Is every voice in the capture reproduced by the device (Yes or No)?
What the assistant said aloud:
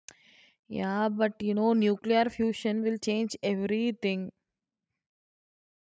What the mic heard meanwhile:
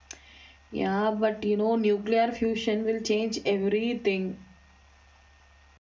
Yes